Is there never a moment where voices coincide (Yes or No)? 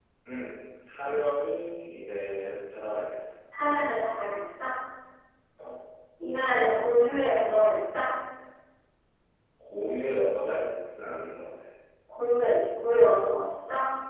Yes